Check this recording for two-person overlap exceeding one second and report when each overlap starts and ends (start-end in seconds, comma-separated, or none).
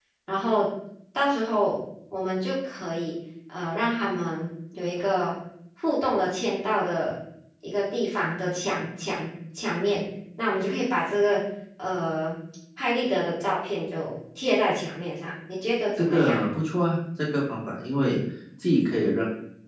none